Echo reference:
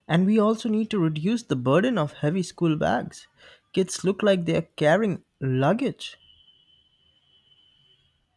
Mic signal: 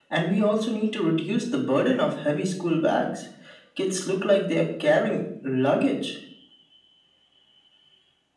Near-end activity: none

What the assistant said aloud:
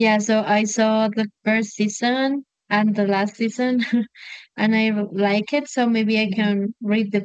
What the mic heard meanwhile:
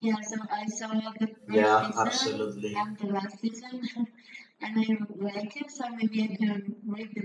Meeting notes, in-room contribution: present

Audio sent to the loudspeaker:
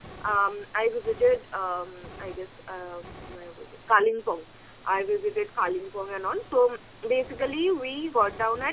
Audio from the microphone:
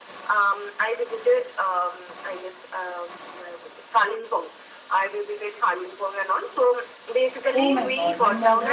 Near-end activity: present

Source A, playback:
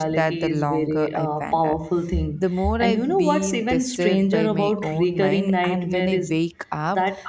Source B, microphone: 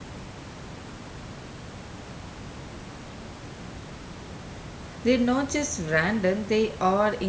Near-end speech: present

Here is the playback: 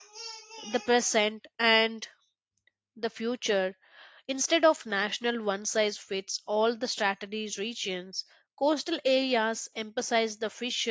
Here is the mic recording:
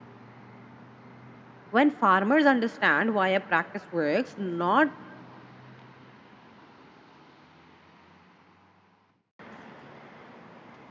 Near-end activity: present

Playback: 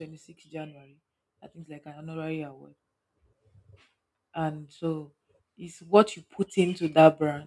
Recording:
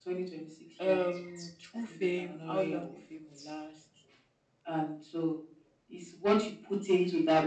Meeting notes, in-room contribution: present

